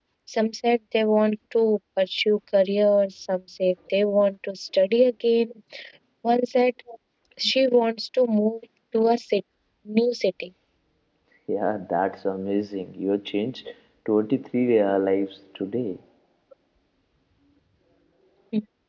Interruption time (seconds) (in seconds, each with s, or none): none